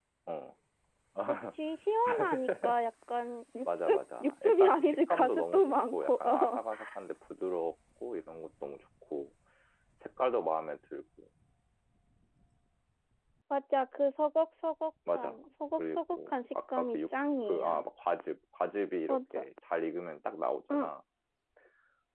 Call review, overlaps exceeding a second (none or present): present